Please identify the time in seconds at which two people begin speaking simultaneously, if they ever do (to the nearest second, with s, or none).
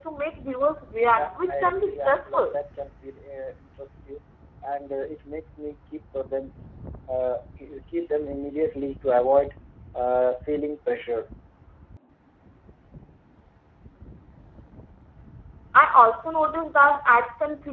1 s